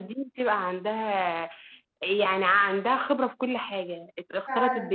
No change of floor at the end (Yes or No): Yes